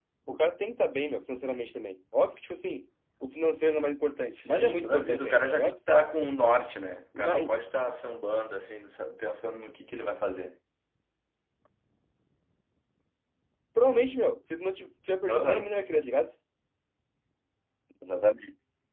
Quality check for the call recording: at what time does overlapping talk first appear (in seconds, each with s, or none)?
4.3 s